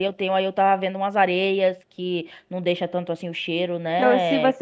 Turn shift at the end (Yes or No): Yes